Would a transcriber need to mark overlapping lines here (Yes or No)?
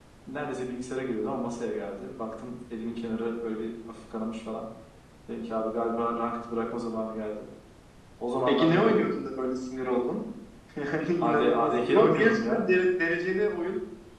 Yes